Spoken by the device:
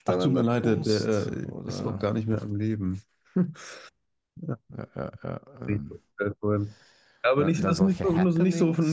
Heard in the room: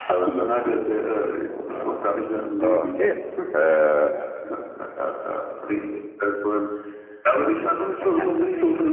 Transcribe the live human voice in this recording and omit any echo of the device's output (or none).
Okay. Äh,